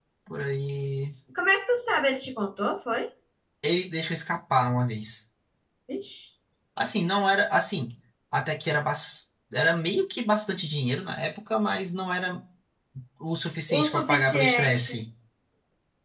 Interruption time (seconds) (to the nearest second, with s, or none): 14 s